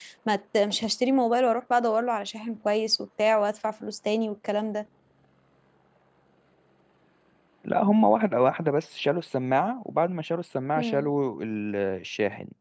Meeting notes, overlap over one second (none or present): none